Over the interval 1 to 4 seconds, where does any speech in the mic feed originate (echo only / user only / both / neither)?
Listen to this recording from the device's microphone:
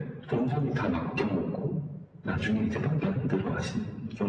echo only